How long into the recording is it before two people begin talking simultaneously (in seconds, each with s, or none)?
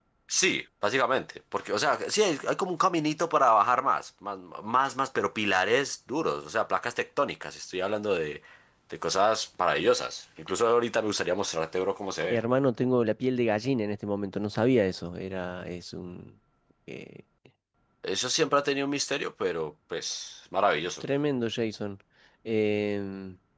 none